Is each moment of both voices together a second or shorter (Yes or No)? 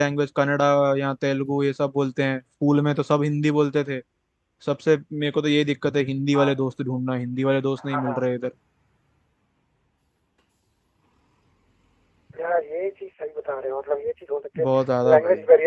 Yes